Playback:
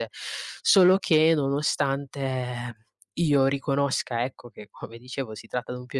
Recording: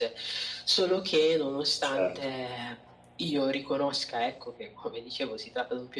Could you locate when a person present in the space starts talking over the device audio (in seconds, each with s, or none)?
1.9 s